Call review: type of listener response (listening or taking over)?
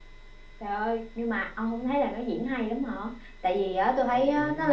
listening